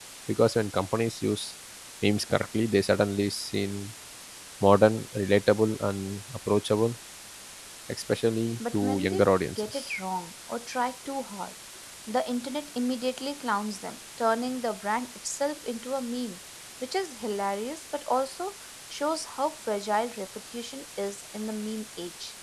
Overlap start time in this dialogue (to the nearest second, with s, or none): 9 s